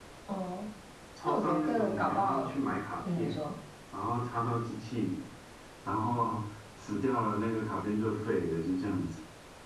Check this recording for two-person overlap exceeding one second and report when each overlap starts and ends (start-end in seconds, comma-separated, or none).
1.2-2.5